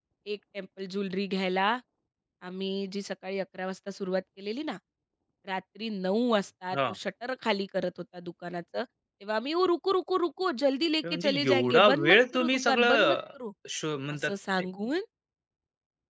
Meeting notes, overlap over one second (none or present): present